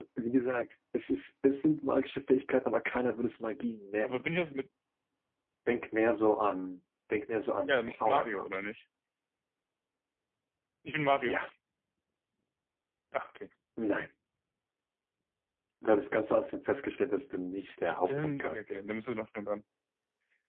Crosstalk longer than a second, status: present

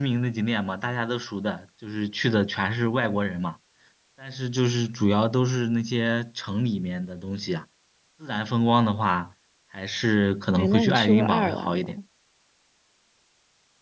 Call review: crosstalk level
present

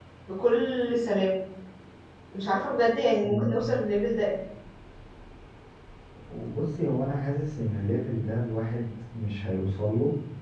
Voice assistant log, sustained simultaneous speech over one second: none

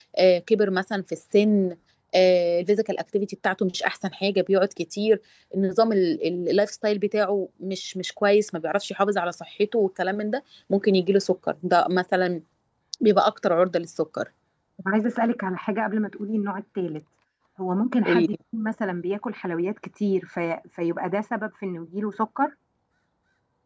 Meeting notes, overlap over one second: none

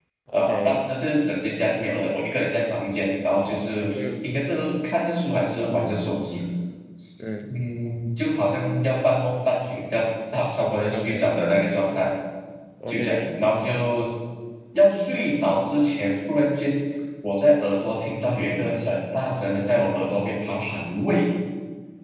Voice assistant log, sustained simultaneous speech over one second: none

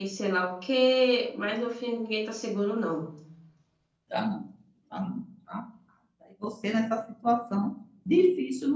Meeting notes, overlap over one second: none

